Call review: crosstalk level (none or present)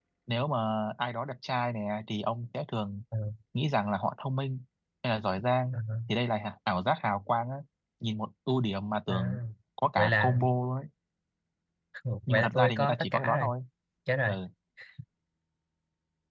present